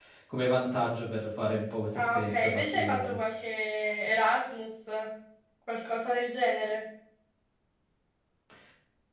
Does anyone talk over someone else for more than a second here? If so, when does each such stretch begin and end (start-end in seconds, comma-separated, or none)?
1.9-3.2